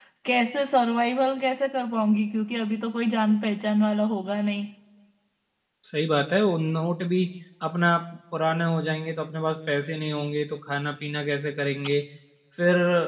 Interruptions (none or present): none